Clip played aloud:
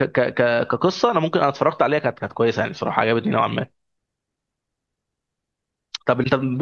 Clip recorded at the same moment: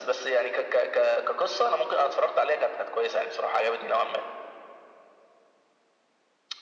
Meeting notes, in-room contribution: none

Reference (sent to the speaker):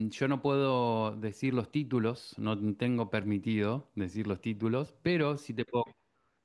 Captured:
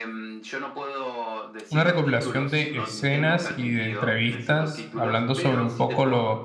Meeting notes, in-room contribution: present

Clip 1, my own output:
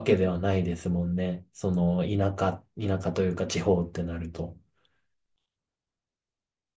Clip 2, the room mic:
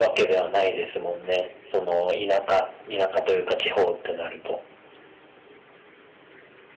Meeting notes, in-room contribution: none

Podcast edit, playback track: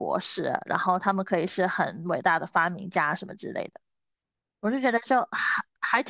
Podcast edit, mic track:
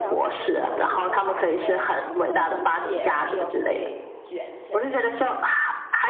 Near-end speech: present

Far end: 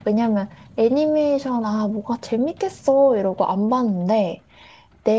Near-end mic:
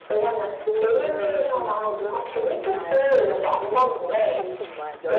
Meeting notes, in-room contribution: present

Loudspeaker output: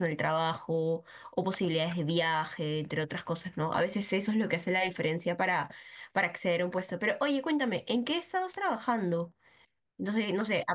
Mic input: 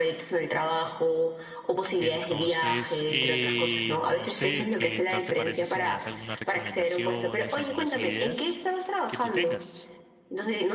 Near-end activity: present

